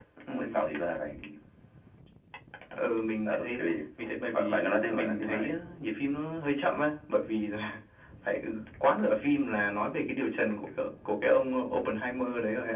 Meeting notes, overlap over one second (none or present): present